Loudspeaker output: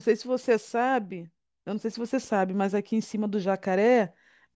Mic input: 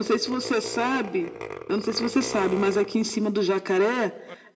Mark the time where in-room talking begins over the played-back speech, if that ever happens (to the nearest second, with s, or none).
none